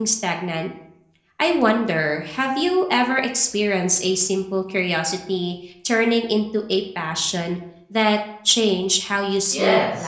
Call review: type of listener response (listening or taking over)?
taking over